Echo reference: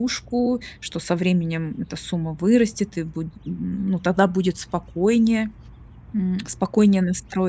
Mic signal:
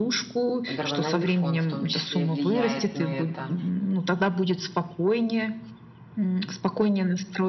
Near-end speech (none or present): present